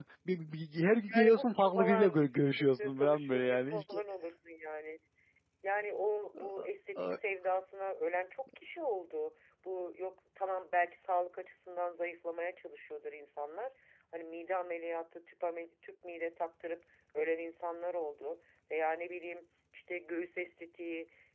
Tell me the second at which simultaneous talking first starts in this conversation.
1 s

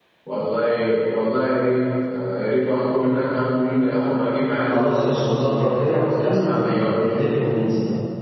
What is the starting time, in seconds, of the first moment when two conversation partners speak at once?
5 s

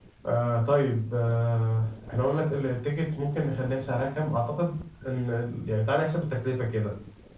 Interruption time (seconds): none

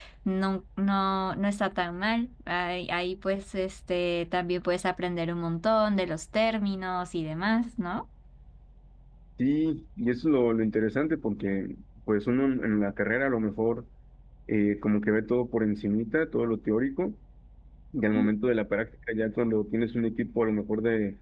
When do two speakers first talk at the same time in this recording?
none

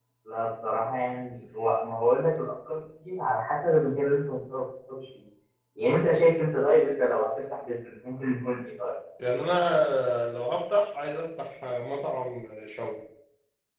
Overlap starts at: none

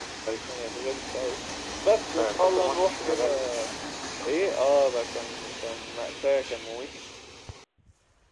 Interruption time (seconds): 2 s

